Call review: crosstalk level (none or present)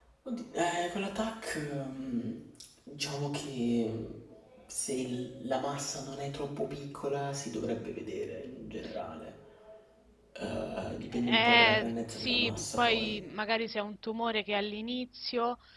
present